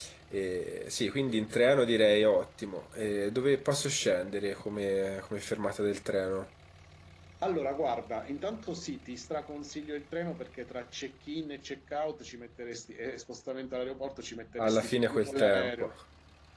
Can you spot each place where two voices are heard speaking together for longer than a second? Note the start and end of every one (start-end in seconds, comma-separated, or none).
14.6-15.9